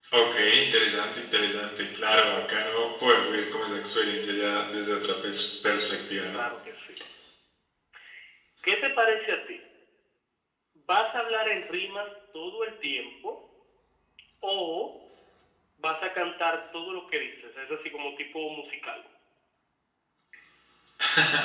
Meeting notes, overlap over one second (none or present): none